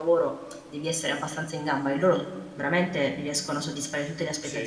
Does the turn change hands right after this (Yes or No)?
Yes